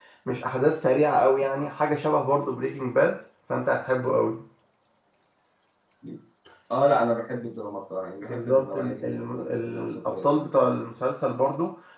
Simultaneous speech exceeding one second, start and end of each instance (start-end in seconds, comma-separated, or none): 8.2-10.7